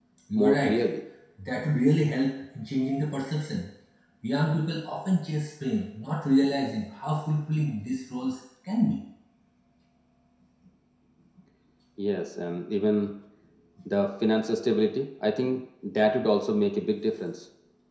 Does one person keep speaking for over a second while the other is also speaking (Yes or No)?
No